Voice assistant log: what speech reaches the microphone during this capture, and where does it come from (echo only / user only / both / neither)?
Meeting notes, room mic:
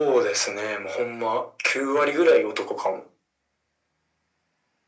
echo only